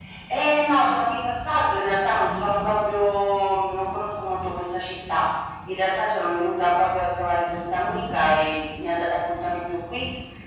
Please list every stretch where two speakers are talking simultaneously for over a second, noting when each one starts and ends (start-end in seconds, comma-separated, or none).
none